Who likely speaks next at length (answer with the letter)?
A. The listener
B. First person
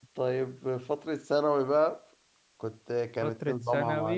A